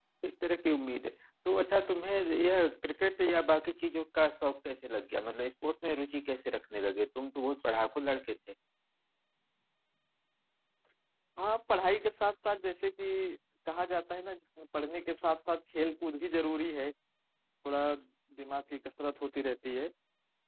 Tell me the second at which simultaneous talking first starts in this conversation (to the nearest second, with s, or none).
none